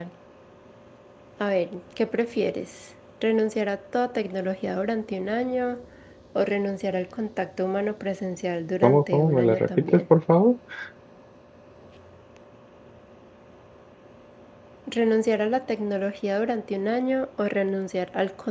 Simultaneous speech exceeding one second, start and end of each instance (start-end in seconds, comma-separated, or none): 8.8-10.0